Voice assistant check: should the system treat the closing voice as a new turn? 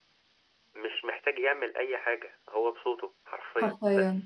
Yes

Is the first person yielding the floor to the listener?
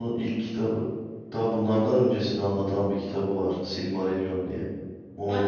Yes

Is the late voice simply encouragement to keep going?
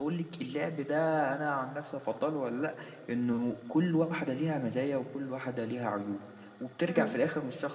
Yes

